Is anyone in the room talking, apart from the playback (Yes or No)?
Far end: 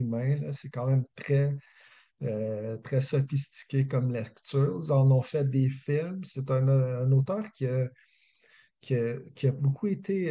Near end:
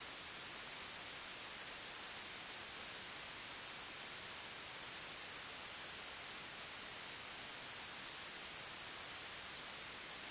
No